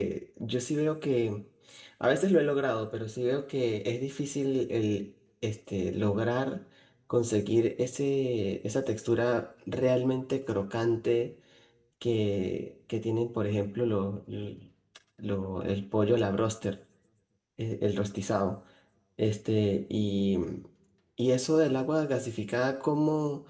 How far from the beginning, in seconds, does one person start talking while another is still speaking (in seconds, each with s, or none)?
none